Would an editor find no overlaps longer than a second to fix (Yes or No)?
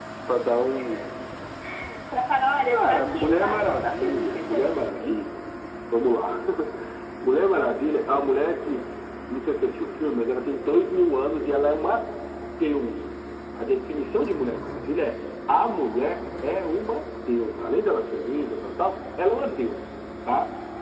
No